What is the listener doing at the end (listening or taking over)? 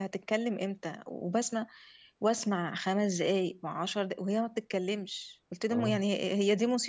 listening